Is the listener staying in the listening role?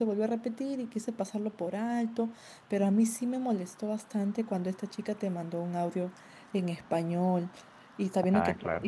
Yes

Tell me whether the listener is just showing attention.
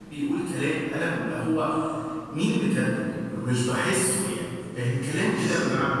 Yes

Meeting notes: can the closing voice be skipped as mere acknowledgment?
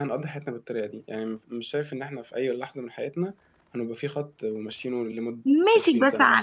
No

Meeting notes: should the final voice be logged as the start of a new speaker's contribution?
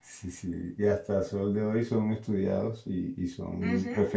No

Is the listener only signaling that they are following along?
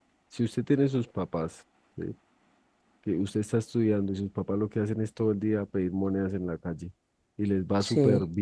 Yes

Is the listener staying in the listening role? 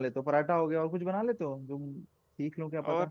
No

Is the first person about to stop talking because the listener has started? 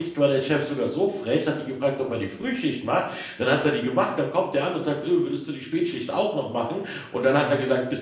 No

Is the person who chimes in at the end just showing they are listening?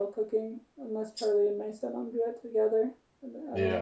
No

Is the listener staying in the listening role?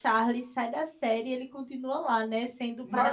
Yes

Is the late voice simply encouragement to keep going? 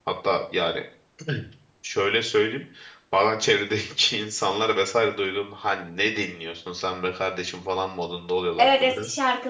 No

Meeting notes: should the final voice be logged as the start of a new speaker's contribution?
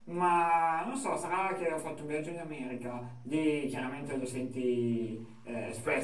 No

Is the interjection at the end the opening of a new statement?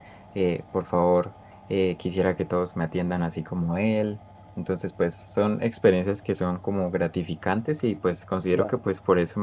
No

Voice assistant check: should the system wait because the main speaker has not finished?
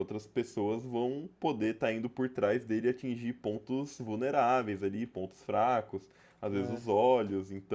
Yes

